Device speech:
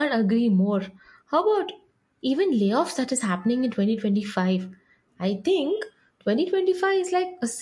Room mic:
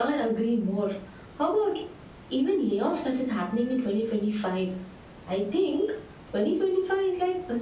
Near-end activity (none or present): none